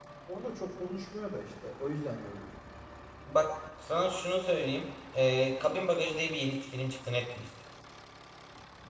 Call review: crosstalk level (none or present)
none